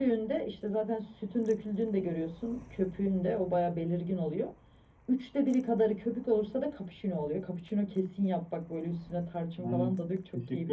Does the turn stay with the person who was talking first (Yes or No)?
No